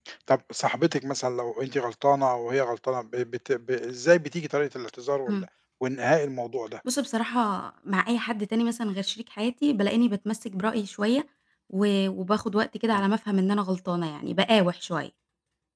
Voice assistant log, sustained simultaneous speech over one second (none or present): none